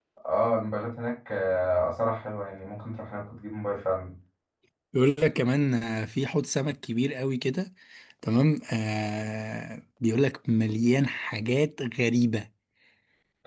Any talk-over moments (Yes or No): No